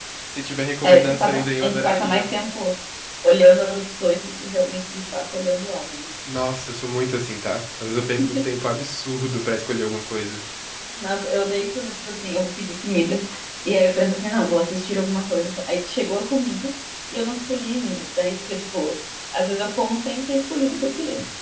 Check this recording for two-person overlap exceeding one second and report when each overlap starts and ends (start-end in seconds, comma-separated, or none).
0.8-2.3